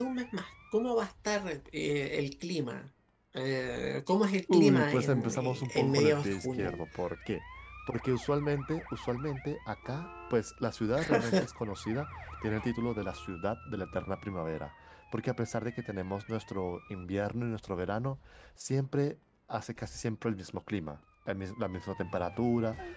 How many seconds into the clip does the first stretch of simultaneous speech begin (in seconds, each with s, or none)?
4.5 s